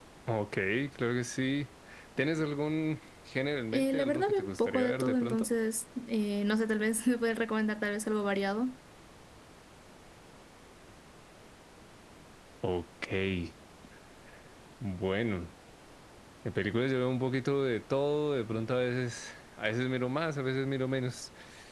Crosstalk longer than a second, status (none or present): present